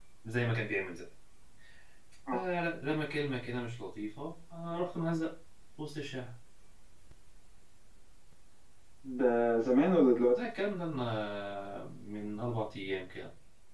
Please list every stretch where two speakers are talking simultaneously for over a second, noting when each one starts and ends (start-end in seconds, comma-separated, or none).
none